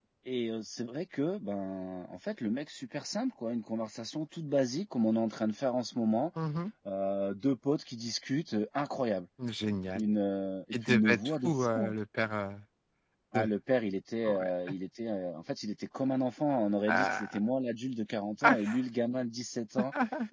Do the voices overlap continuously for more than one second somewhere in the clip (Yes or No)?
Yes